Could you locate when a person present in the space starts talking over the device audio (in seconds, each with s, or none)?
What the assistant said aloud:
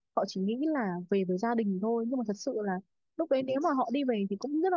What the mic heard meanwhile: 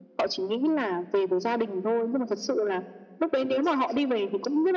none